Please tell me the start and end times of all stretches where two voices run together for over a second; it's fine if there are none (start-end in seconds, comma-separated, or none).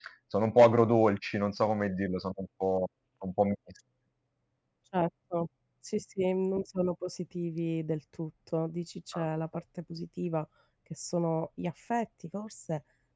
none